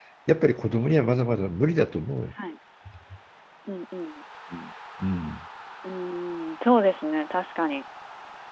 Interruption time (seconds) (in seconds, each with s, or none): none